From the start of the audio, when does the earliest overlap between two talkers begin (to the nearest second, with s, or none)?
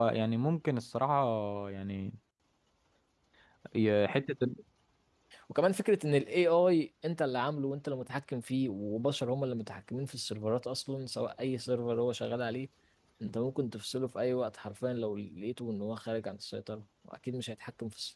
none